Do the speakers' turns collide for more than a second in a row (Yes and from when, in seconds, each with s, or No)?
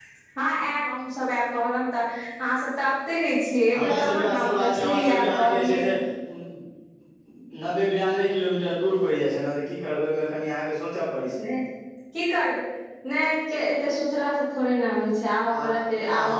Yes, from 3.7 s